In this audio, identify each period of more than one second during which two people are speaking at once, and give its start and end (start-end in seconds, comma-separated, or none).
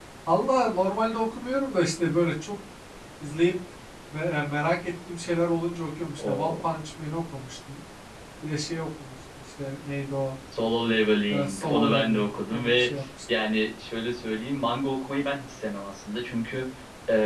11.3-12.9